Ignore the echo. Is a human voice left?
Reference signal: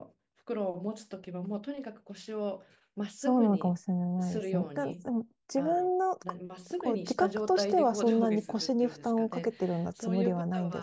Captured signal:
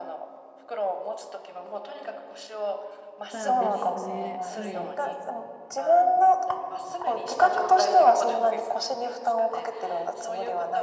Yes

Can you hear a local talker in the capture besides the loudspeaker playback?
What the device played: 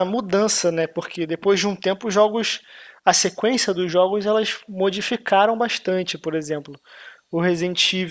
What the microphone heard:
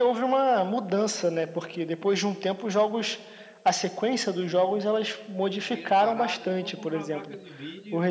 Yes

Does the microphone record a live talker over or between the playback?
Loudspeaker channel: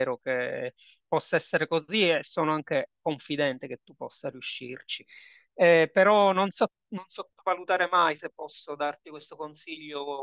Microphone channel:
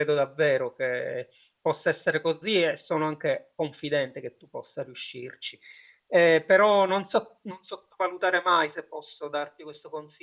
No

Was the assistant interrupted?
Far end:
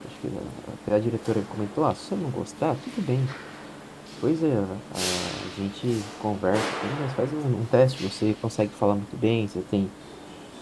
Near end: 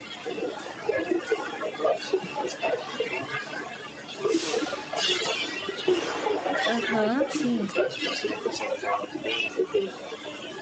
Yes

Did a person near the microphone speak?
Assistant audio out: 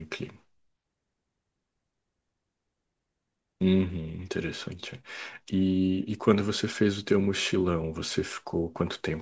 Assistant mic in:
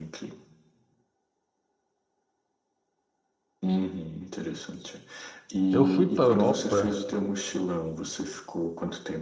Yes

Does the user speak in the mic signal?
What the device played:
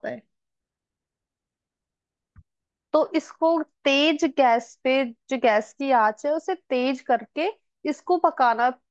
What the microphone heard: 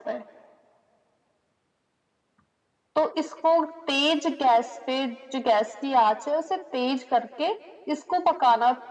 No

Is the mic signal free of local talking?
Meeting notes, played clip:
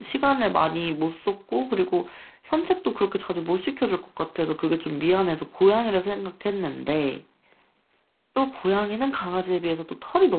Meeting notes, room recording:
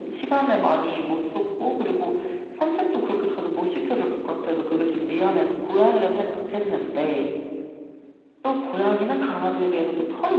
Yes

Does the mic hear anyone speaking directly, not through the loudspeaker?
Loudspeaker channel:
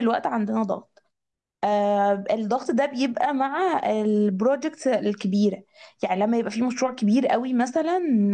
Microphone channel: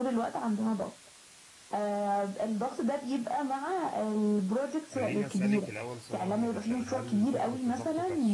Yes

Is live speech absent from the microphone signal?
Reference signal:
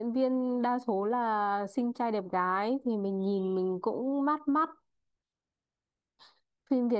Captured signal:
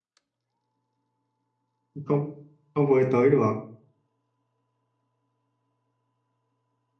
No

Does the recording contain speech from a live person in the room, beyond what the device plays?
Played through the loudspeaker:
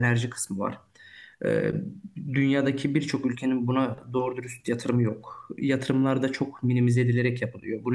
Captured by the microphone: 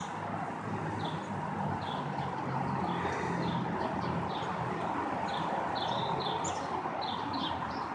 No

